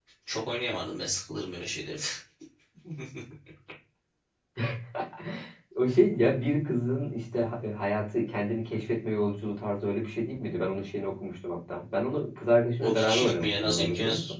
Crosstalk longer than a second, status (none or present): present